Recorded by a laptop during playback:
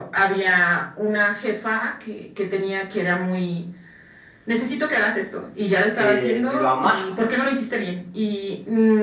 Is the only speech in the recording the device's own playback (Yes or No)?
No